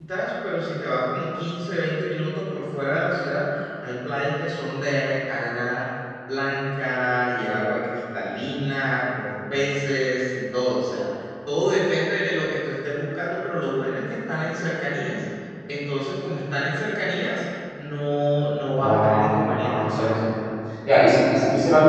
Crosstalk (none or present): present